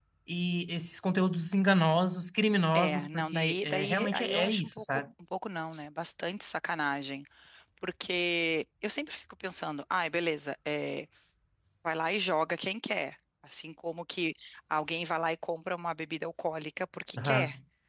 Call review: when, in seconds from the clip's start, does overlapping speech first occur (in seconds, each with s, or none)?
2.7 s